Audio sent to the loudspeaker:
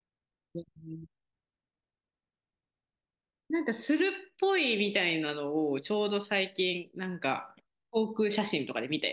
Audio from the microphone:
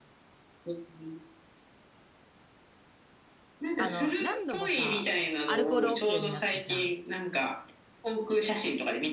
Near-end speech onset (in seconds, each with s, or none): 3.8 s